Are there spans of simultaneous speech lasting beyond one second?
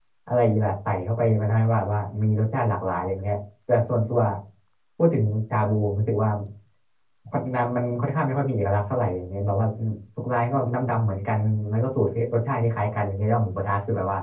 No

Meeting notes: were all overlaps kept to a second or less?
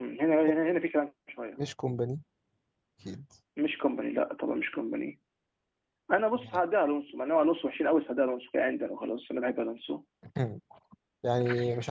Yes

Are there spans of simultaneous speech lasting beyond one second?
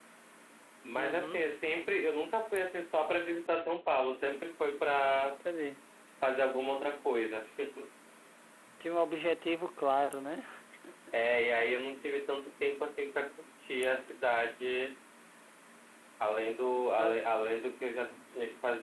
No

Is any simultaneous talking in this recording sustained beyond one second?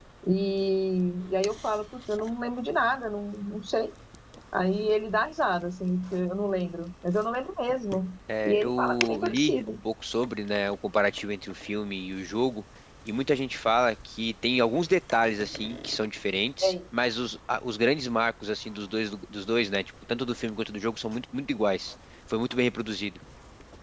Yes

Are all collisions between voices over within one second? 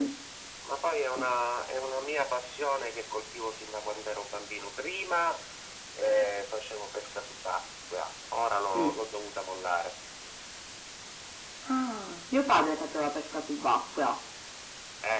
Yes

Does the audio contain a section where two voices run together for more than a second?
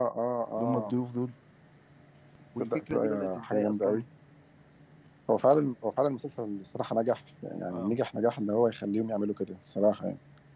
Yes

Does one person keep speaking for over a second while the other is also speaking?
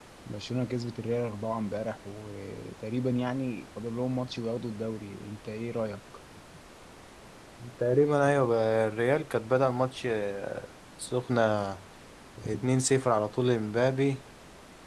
No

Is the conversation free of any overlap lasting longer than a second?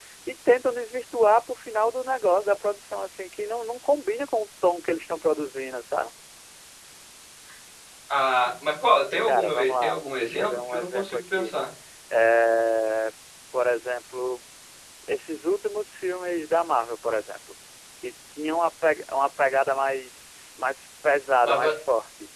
No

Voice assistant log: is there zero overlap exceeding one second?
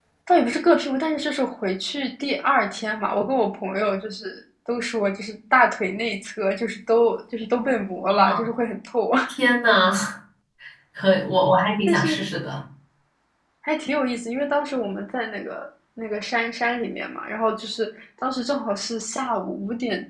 Yes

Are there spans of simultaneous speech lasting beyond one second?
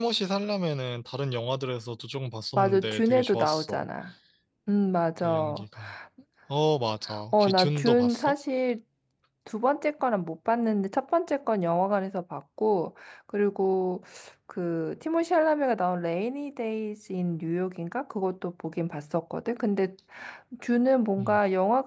Yes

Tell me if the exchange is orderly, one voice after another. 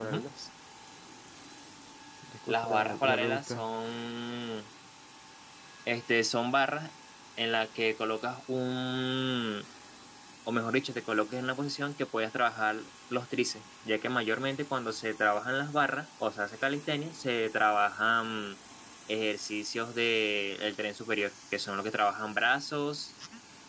No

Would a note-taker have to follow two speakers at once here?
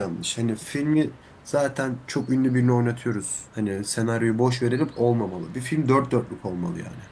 No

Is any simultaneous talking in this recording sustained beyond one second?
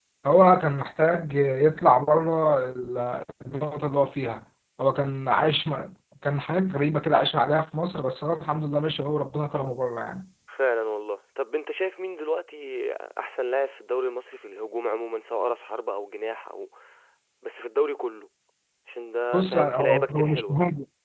Yes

